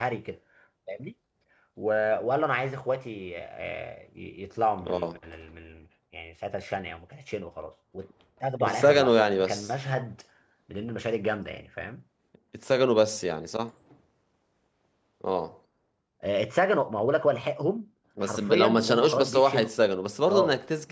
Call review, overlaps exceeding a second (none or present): present